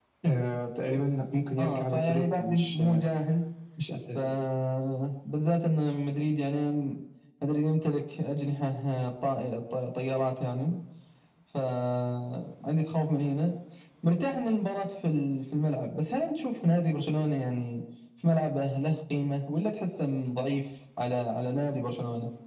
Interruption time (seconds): 2 s

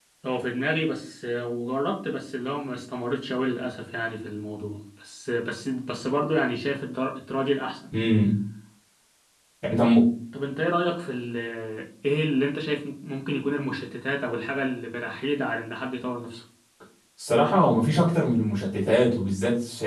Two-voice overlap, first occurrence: none

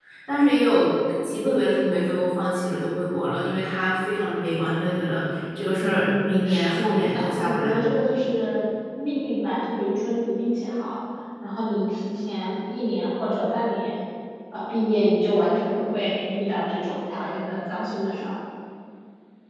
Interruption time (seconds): 6 s

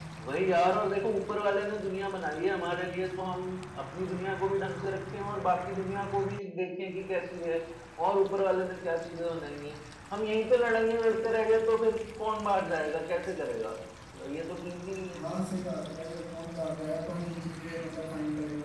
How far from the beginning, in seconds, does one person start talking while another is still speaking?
none

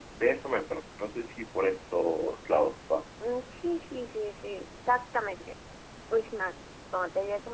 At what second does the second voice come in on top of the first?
none

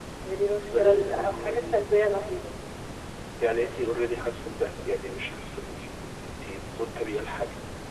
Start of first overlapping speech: 1 s

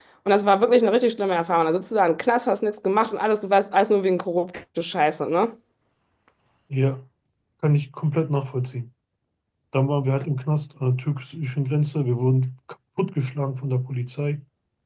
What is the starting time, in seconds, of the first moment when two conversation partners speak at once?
none

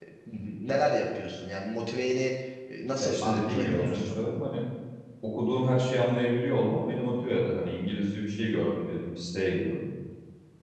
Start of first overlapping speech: 3 s

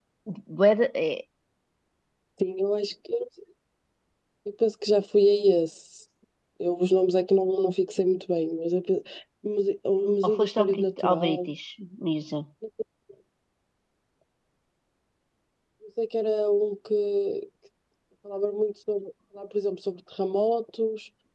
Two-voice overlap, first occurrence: 10 s

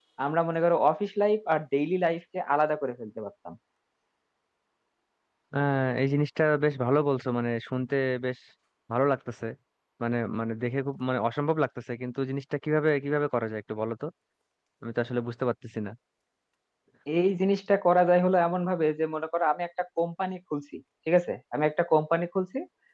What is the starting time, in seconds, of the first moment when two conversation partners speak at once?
none

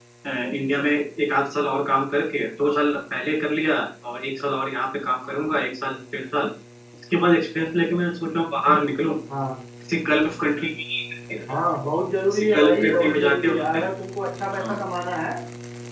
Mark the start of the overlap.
12 s

